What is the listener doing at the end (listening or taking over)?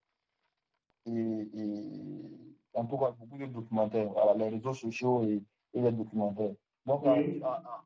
listening